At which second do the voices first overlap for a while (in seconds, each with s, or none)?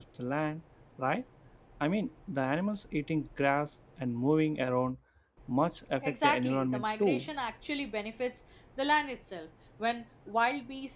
6.0 s